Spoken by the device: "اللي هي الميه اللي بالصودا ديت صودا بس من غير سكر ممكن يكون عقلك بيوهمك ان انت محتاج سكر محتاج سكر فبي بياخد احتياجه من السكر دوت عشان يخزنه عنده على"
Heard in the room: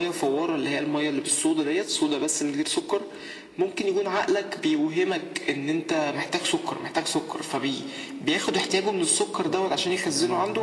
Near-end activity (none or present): present